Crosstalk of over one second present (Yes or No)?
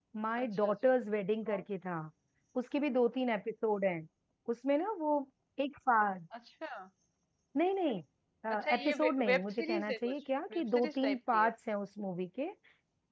Yes